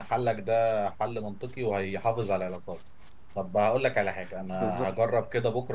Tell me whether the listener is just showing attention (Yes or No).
Yes